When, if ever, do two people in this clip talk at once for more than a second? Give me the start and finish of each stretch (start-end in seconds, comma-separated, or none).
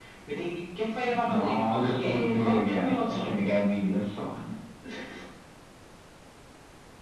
1.2-3.3